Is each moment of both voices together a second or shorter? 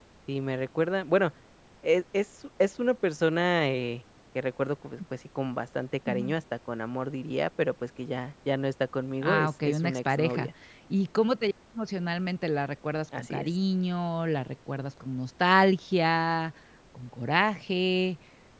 No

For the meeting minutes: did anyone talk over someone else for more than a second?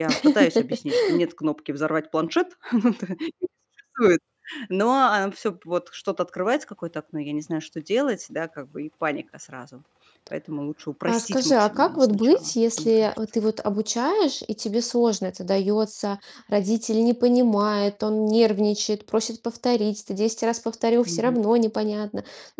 Yes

